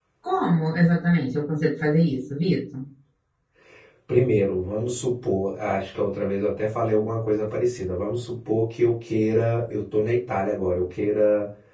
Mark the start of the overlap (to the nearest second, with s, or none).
none